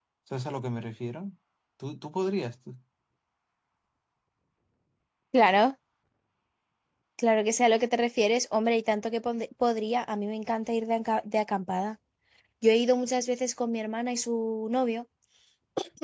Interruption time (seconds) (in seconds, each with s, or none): none